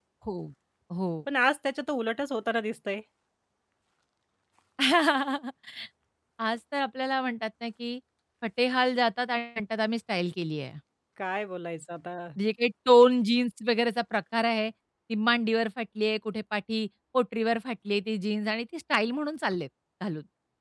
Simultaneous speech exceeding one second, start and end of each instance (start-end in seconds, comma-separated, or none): none